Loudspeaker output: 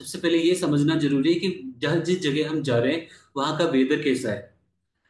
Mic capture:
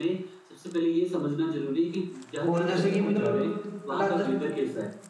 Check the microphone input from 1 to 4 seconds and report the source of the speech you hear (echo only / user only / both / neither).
both